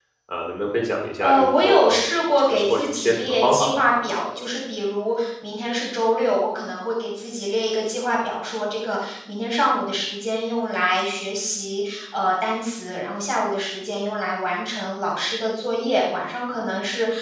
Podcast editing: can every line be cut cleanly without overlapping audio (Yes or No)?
No